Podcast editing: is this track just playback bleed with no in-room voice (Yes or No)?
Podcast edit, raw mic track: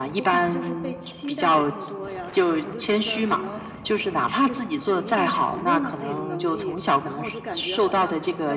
No